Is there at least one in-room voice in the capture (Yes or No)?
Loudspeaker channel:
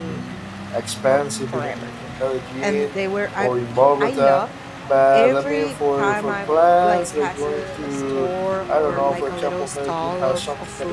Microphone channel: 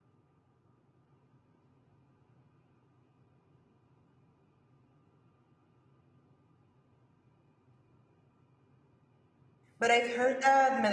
Yes